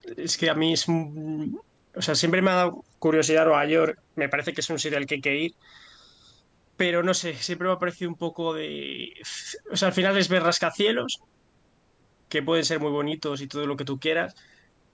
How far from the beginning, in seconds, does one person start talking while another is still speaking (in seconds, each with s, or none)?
none